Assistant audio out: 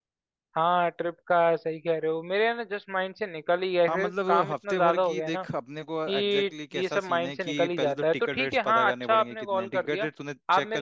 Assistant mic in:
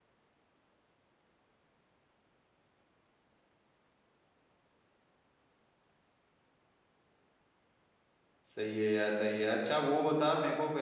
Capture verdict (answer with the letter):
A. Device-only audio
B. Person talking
B